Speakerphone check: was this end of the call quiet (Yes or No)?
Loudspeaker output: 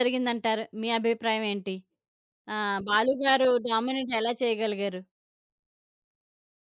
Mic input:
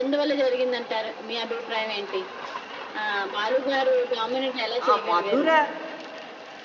No